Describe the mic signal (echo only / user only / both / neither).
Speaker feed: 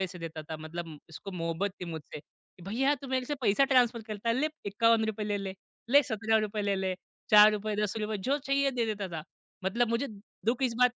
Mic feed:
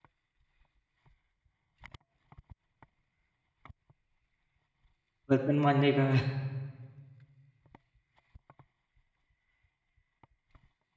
user only